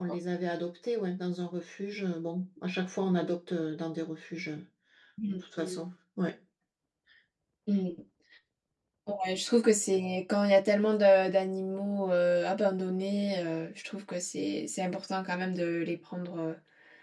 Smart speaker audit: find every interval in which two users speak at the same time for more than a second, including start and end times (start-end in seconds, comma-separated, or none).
none